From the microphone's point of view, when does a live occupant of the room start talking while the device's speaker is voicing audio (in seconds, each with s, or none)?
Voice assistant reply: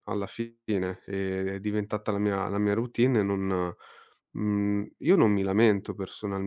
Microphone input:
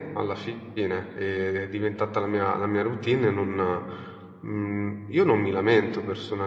none